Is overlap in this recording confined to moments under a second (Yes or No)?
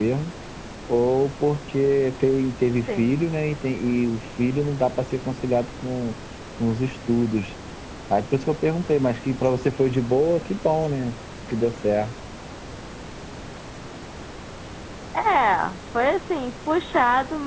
Yes